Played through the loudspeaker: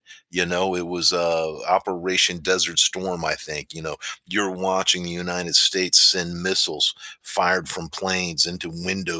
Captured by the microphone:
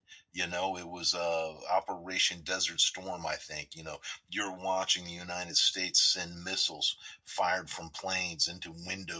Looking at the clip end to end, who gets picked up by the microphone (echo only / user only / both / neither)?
echo only